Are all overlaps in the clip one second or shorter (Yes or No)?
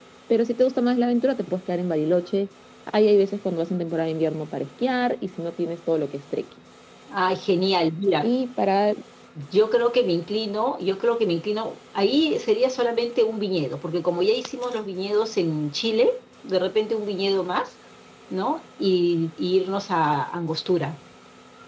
Yes